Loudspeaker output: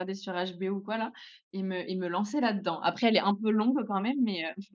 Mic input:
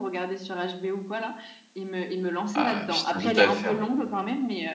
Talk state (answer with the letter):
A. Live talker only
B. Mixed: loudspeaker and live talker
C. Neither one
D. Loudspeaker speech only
B